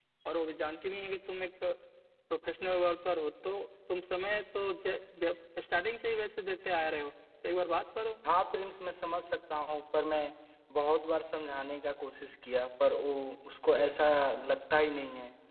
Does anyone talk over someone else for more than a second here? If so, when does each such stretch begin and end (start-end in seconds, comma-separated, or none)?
none